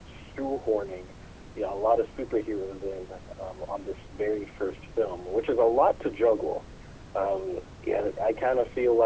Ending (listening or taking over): listening